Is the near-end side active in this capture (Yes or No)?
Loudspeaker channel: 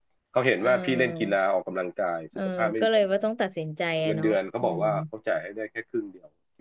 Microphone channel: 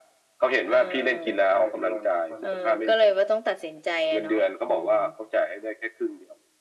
Yes